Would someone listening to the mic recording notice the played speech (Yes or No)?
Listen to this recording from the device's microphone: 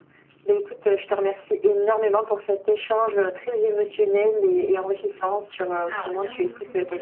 Yes